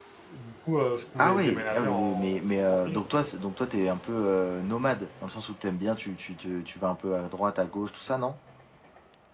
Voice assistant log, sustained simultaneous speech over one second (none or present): present